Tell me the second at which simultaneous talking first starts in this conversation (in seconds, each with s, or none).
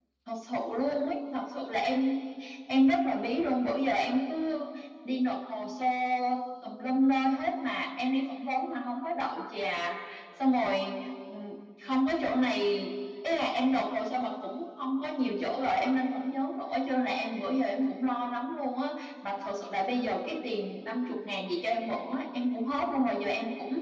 none